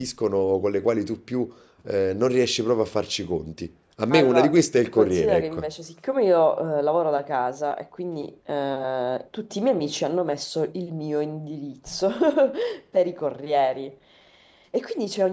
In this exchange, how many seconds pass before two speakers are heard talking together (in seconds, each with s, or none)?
4.1 s